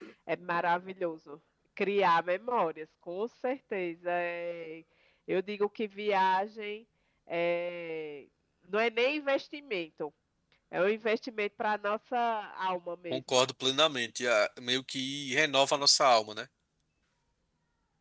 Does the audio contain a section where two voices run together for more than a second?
No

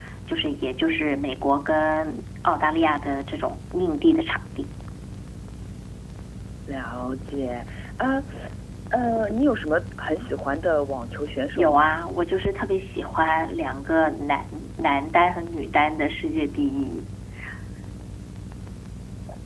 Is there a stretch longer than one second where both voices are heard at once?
No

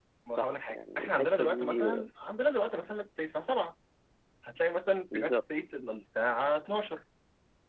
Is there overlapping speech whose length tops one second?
Yes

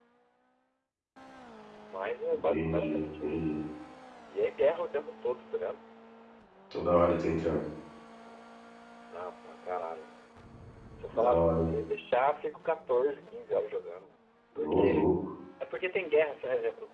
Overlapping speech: Yes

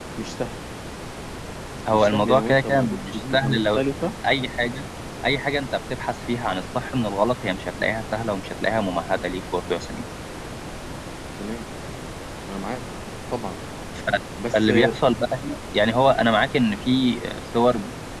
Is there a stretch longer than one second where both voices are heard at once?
Yes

